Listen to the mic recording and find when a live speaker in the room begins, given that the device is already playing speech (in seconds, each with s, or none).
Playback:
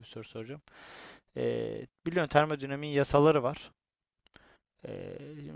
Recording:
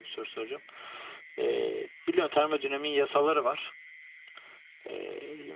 none